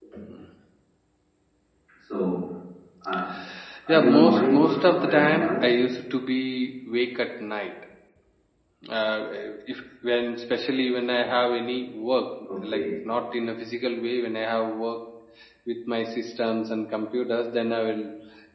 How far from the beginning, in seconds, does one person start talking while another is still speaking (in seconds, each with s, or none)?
3.9 s